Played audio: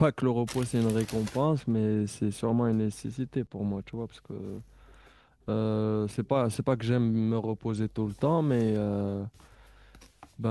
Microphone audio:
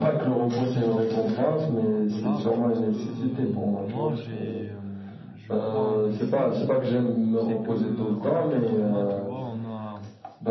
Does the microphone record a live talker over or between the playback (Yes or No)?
Yes